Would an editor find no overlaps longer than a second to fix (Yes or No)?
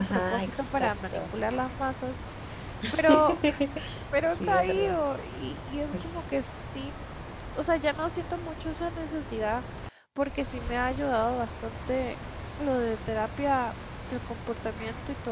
No